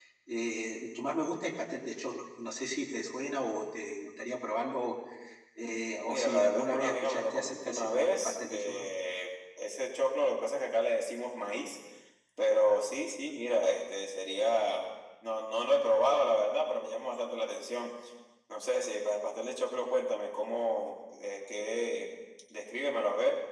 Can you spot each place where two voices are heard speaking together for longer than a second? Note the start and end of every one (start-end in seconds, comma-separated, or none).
6.1-8.8